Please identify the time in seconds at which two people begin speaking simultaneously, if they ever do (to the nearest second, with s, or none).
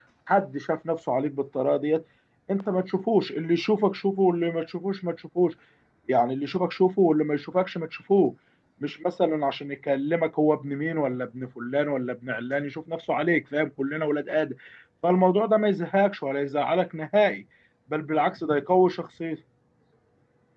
none